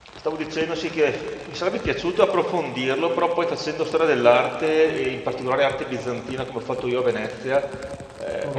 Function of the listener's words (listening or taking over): listening